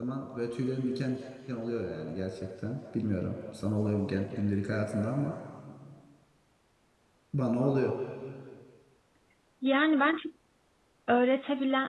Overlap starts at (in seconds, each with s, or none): none